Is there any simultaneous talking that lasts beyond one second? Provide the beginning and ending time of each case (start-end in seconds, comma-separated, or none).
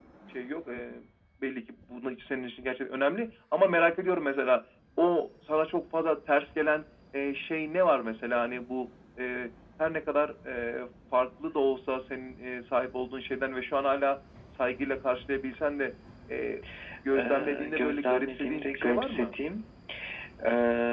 17.2-19.3